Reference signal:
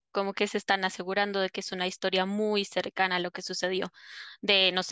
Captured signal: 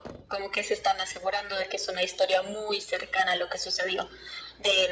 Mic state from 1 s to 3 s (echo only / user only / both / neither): echo only